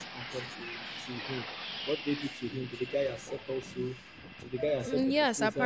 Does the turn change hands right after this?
Yes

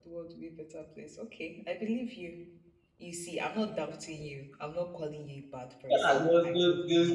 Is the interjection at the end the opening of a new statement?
Yes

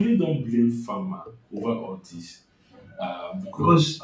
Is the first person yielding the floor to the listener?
Yes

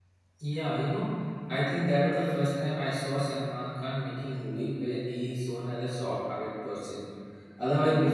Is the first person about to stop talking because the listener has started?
No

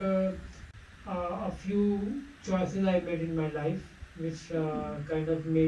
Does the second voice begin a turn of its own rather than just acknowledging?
No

